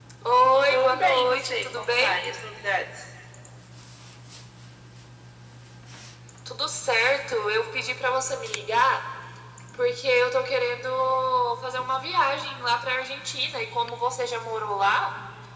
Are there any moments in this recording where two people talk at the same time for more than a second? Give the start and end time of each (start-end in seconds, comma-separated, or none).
0.7-2.2